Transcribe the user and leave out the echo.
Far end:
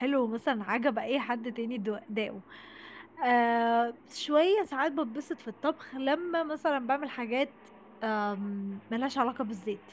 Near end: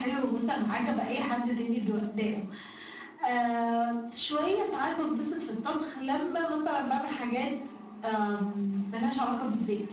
none

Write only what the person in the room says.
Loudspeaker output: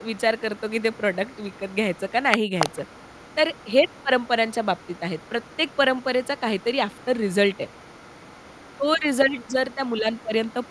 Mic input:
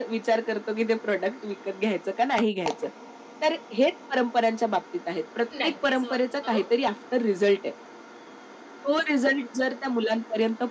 नक्कीच बघतो.

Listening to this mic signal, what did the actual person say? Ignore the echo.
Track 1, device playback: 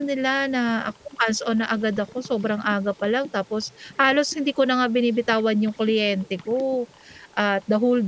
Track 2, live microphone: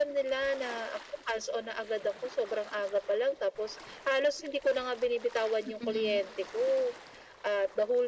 Mm.

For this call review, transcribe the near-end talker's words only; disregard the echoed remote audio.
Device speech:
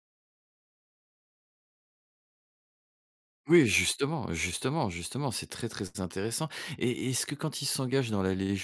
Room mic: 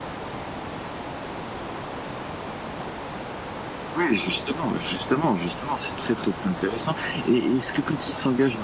none

